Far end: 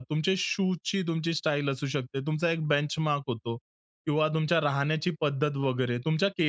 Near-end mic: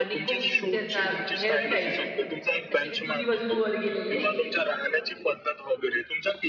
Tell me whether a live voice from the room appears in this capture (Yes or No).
Yes